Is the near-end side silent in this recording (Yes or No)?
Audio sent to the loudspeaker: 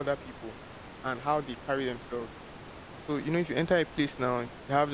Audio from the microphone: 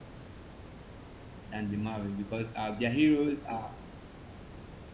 No